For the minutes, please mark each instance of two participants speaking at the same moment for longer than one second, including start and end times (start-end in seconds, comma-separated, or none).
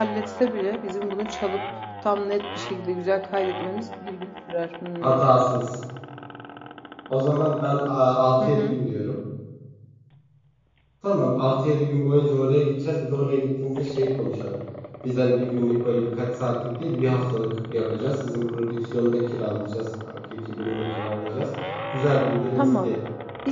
none